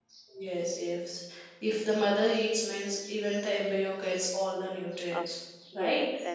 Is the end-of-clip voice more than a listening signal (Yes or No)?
Yes